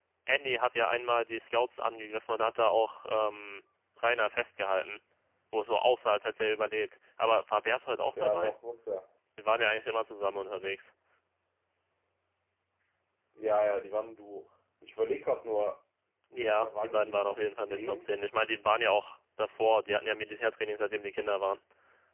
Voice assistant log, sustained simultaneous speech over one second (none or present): present